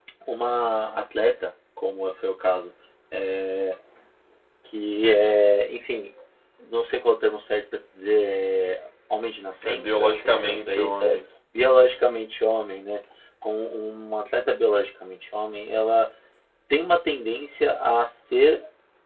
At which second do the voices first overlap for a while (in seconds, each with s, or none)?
9.6 s